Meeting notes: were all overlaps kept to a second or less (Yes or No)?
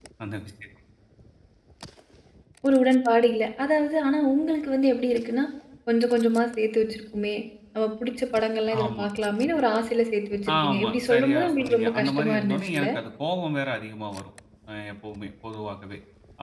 No